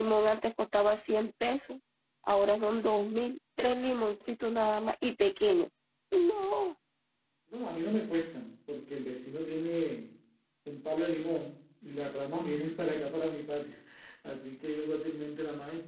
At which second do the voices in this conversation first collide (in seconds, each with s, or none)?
none